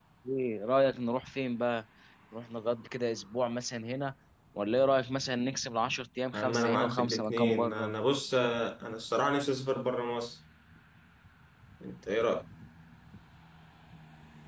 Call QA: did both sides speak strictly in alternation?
No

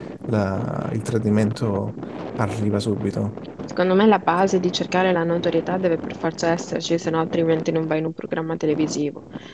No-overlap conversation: Yes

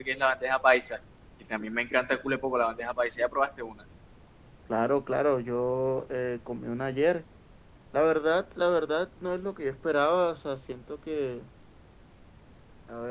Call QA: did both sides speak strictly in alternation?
Yes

